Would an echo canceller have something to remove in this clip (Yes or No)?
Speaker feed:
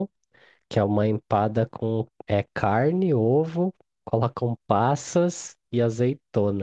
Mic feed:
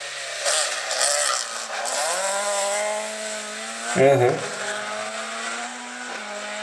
No